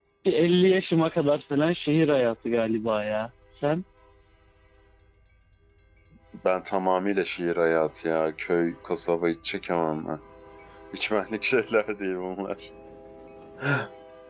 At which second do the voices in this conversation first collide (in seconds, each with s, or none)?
none